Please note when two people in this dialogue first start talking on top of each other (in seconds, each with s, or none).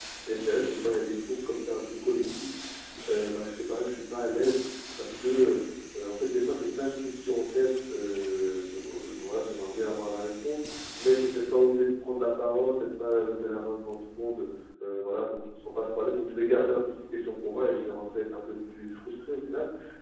none